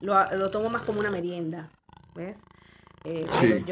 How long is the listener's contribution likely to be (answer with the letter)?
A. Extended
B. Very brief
B